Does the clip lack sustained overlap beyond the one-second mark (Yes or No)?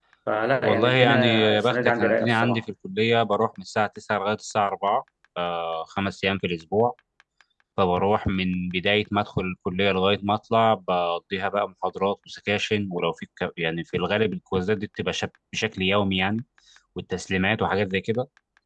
No